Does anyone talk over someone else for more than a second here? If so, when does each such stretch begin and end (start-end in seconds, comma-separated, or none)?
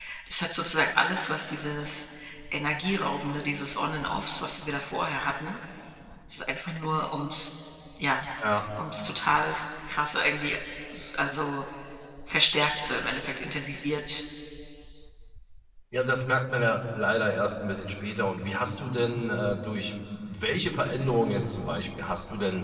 none